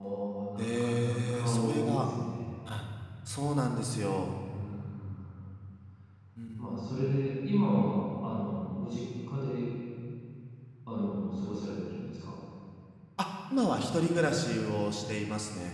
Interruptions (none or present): present